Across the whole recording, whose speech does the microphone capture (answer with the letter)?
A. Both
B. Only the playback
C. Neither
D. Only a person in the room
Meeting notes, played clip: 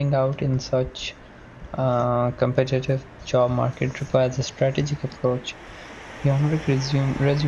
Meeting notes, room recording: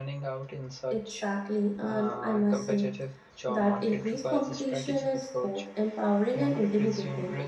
A